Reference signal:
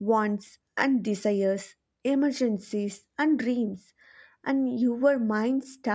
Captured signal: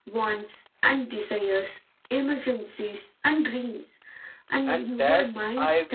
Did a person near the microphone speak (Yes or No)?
Yes